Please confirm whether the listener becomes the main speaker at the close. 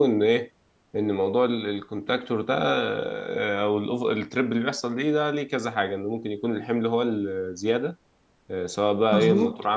No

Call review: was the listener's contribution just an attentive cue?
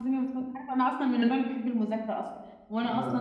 Yes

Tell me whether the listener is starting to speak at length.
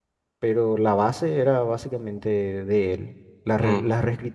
No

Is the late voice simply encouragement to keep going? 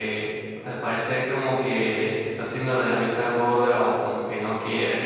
Yes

